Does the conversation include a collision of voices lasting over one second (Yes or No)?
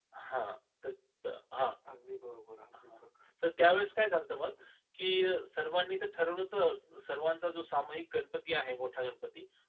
No